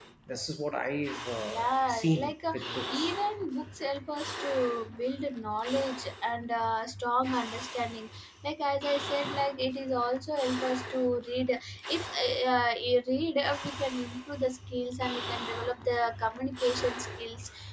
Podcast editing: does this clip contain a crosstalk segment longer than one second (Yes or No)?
Yes